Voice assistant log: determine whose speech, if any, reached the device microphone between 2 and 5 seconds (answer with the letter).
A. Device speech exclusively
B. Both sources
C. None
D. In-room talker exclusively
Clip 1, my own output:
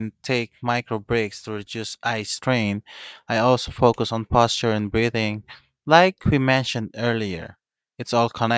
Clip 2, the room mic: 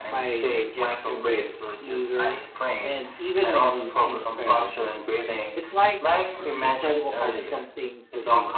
B